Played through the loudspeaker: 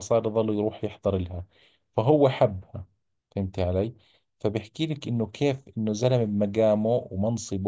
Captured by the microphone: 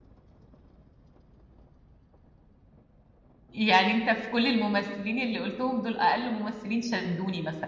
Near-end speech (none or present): present